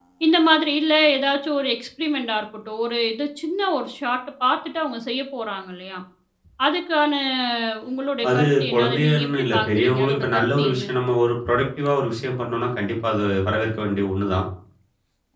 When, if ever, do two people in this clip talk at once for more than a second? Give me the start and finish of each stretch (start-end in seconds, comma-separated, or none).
8.3-10.8